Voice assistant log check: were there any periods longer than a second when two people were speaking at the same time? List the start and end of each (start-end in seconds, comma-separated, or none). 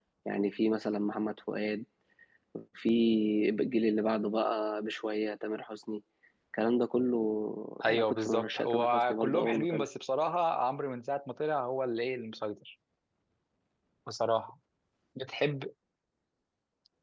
7.8-9.9